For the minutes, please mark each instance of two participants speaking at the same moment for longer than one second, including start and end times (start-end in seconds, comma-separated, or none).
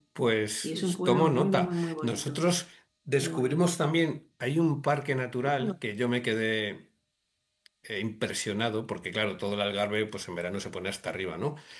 0.6-2.4